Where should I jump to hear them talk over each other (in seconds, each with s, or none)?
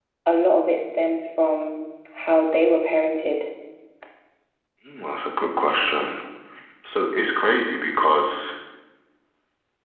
none